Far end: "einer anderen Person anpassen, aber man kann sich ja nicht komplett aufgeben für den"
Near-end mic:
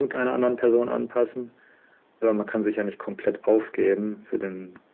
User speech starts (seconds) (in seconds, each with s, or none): none